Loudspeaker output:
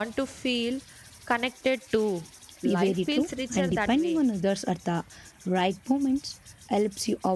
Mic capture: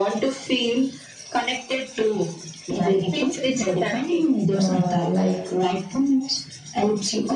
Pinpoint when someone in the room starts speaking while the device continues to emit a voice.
5 s

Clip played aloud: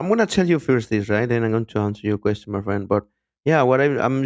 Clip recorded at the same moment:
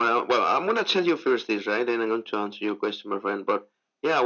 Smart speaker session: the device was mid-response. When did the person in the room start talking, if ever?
none

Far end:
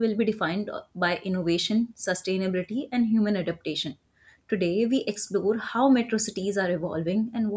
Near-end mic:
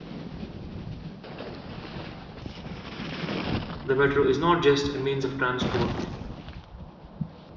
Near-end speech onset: 4 s

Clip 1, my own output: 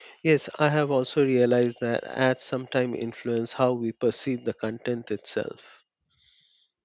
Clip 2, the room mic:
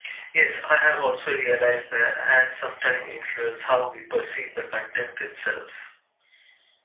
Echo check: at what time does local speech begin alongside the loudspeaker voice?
none

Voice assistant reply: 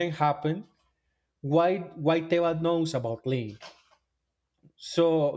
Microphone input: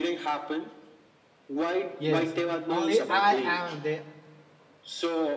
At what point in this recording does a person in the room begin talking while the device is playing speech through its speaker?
2 s

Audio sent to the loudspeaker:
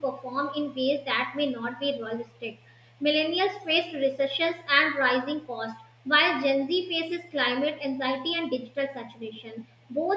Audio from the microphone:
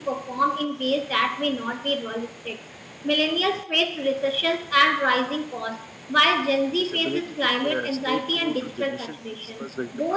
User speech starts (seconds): 7 s

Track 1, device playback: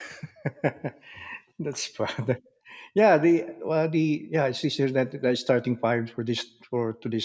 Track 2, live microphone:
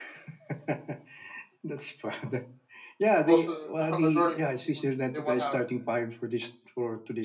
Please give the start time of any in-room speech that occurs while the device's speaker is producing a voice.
3 s

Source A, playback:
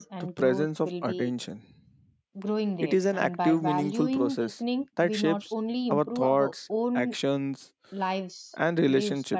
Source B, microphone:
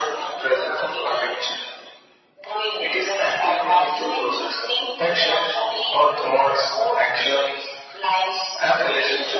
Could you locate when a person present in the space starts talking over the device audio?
none

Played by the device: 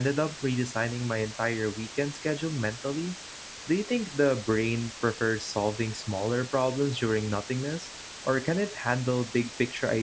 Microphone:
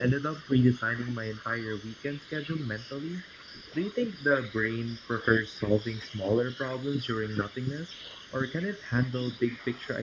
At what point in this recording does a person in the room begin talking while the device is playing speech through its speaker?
none

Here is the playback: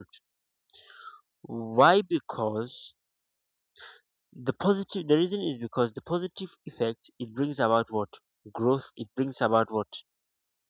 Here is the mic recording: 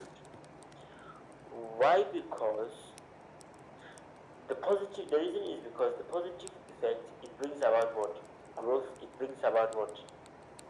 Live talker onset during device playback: none

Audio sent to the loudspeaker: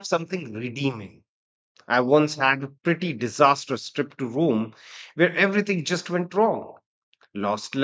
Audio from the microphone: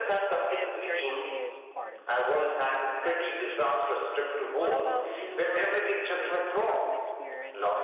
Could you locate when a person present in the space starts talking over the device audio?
0 s

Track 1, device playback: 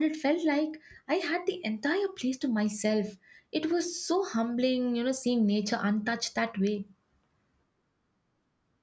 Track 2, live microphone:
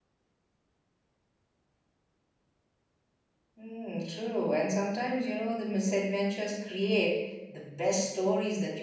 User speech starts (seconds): 4 s

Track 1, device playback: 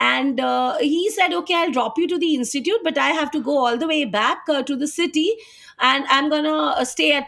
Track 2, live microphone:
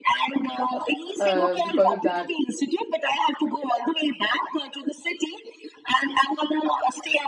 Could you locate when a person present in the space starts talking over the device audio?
1 s

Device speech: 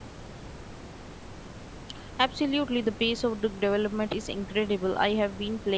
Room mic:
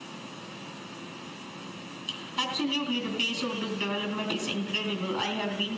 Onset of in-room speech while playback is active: none

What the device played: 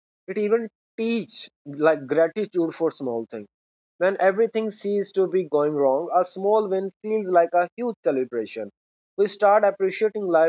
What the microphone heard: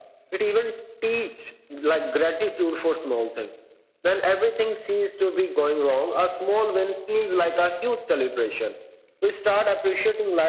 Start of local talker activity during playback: none

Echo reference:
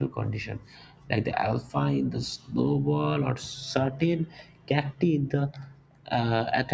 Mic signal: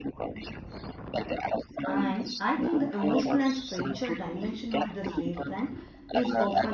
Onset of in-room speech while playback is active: 2 s

